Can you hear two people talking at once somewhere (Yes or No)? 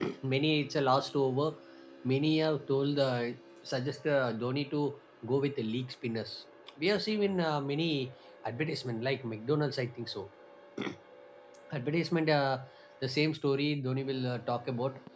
No